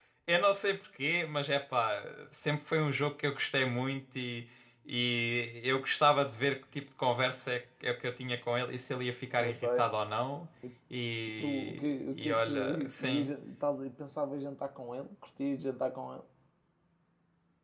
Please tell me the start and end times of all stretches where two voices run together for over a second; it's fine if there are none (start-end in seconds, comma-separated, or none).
11.3-13.3